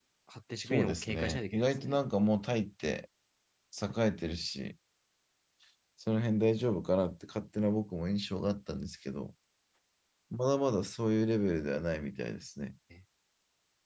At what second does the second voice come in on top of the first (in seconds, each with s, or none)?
0.6 s